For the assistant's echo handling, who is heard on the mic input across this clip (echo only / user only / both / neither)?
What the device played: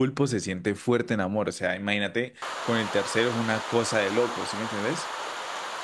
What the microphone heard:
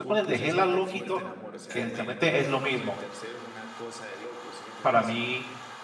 both